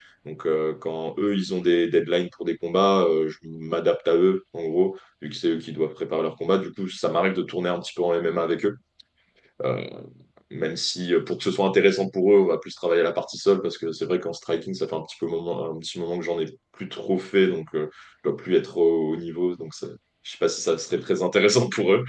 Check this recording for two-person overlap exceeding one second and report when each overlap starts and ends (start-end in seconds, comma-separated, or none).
none